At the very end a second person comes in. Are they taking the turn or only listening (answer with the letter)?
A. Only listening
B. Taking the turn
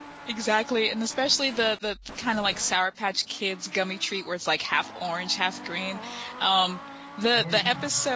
A